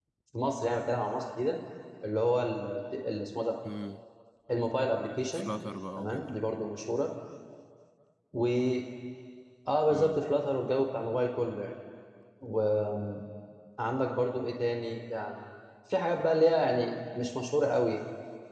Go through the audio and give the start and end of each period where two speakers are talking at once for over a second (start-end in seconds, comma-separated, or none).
none